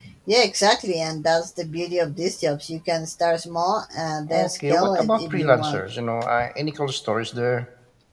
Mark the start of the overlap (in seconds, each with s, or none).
4.3 s